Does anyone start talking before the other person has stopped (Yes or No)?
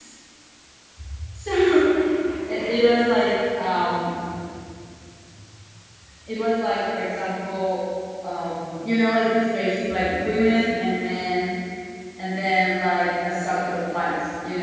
No